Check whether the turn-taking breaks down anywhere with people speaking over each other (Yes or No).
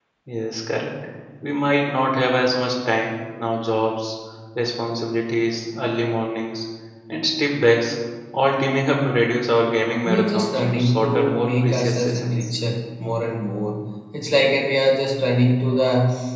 Yes